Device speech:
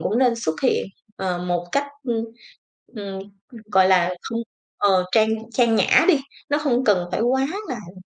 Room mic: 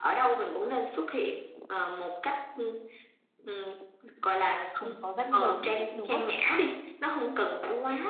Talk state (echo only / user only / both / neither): both